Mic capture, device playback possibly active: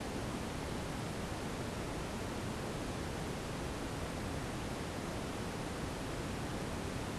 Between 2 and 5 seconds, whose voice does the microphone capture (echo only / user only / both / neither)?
neither